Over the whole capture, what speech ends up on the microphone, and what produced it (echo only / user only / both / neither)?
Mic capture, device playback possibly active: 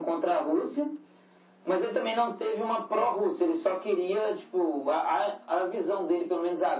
echo only